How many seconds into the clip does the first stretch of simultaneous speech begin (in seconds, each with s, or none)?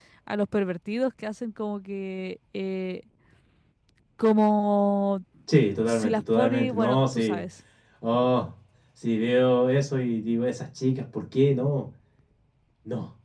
5.9 s